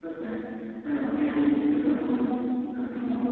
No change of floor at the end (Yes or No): No